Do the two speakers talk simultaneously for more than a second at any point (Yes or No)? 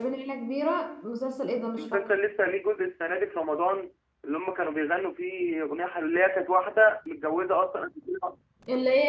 No